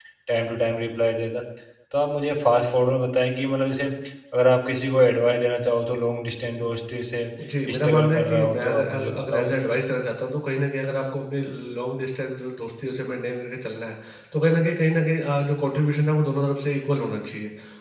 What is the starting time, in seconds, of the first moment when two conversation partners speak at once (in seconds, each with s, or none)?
7.7 s